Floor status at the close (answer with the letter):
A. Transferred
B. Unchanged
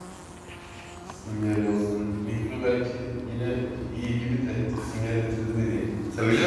A